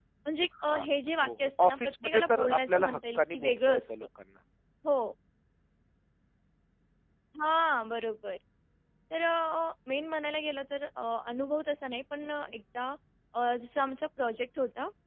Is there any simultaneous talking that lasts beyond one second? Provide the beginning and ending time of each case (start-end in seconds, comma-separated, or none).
1.2-3.8